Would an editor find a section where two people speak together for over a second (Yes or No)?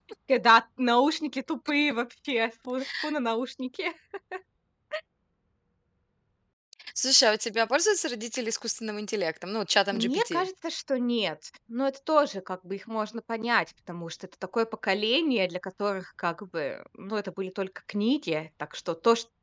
No